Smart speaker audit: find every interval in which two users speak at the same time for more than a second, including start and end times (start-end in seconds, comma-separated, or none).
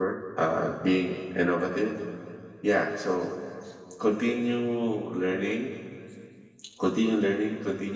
none